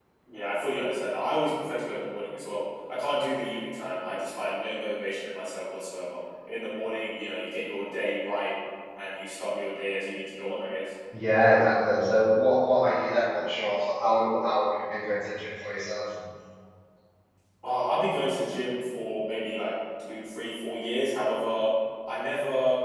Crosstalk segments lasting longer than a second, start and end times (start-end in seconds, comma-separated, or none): none